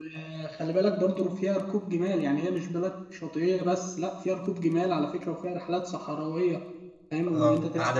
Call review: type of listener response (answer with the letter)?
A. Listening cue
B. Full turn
B